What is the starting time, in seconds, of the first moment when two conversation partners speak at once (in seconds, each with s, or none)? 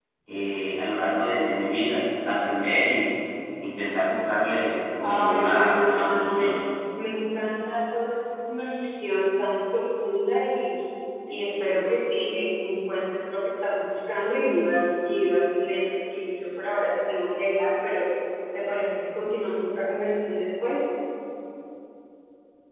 5.0 s